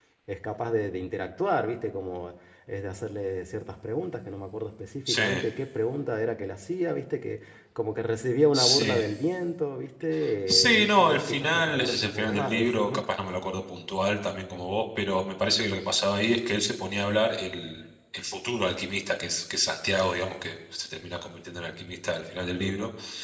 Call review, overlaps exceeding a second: present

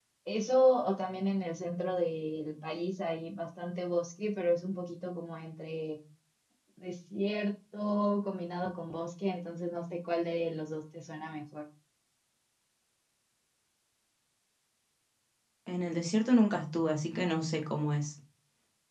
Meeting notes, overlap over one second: none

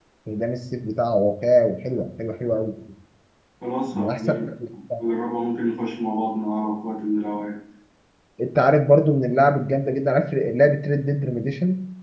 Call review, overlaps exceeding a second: none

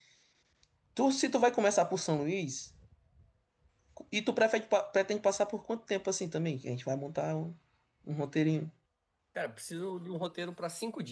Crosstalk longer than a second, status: none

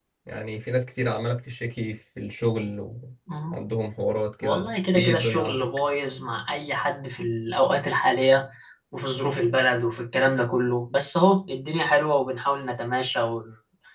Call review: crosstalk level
present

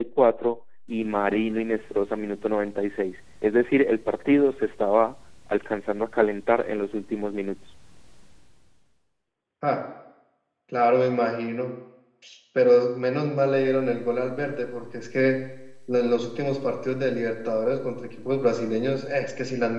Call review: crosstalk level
none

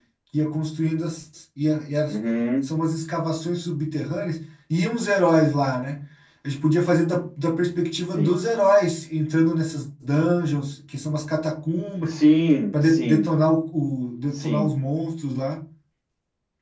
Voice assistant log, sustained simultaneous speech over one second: none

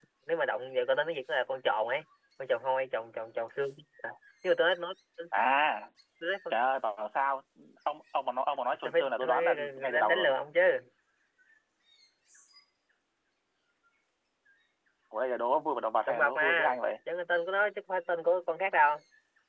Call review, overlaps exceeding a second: present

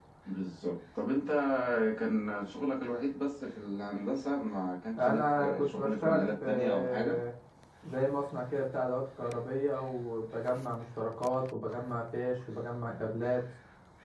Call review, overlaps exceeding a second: present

